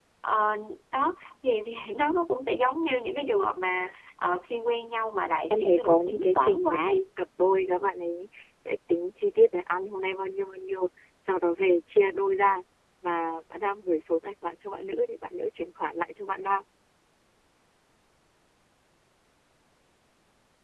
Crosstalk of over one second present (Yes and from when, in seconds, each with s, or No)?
Yes, from 5.5 s